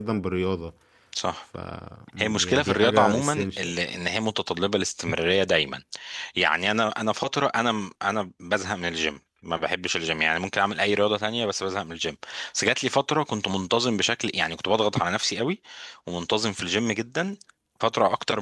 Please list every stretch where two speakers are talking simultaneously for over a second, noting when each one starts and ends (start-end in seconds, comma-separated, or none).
2.2-3.7